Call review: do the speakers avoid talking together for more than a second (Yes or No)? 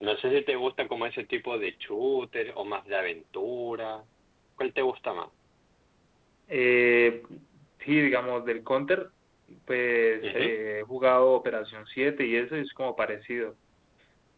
Yes